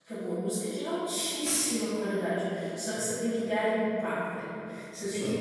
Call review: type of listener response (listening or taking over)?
listening